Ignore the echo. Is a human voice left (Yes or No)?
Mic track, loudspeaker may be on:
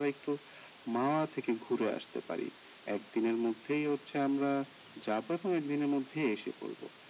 No